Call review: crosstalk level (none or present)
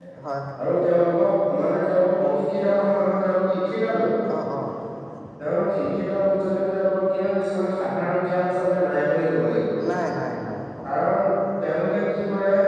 none